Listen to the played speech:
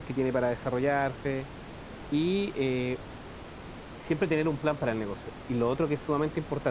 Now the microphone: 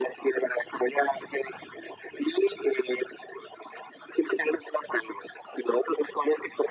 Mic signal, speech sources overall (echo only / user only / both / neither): echo only